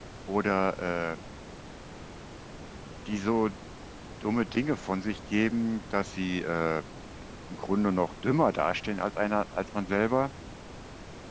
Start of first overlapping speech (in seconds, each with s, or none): none